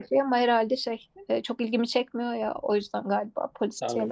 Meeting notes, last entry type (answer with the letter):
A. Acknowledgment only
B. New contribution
B